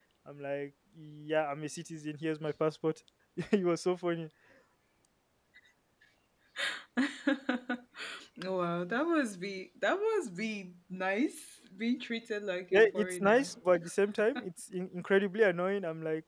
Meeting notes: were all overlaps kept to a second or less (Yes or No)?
No